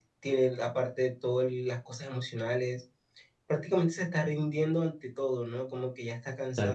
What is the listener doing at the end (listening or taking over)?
taking over